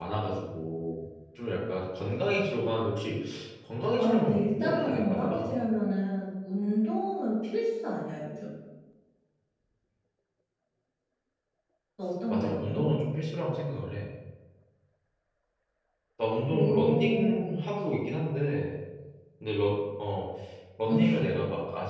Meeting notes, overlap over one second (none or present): present